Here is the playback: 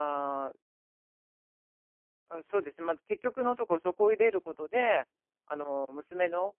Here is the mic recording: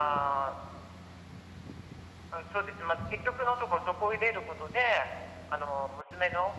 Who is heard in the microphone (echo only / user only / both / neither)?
echo only